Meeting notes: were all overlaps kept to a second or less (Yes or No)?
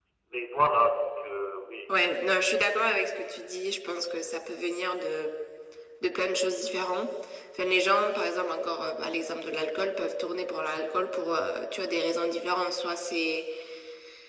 Yes